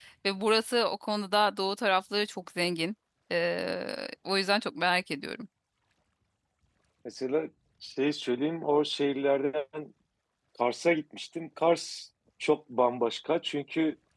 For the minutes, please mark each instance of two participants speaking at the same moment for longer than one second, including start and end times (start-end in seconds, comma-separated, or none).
none